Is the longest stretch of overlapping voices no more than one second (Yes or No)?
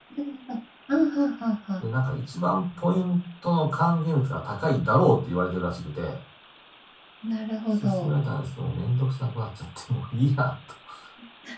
Yes